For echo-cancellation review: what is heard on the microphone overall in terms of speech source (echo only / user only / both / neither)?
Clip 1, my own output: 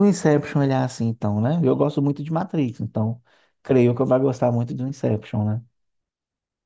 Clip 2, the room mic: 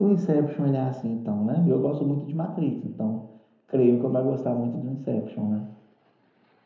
echo only